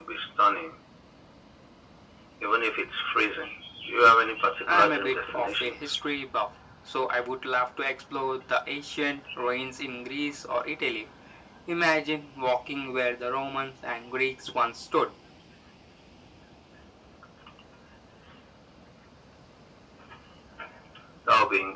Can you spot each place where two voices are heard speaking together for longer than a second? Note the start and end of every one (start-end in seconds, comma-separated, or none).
4.7-5.9